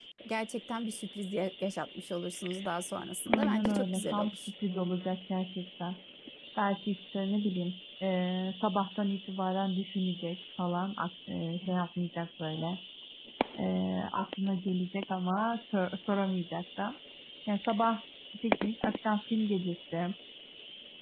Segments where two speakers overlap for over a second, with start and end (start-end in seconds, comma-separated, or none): 3.3-4.5